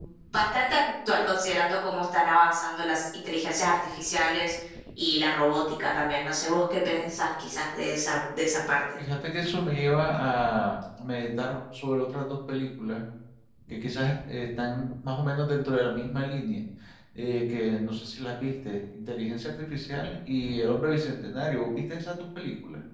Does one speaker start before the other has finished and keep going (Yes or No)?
No